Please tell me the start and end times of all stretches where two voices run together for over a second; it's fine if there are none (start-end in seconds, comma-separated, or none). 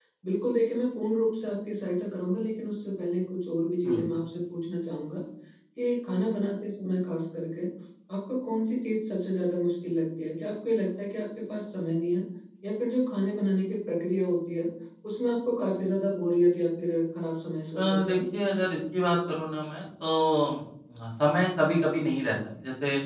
none